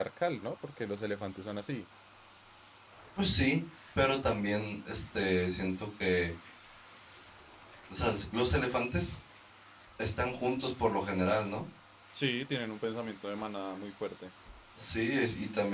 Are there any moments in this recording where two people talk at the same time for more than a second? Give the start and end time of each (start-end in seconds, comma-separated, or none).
none